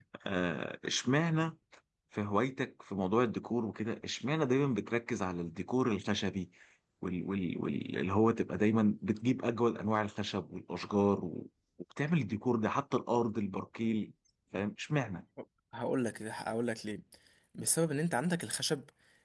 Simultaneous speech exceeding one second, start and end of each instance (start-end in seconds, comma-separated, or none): none